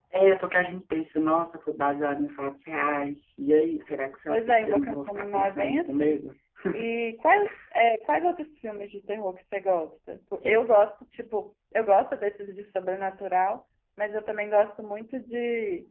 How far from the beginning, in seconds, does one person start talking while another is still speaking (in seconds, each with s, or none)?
4.3 s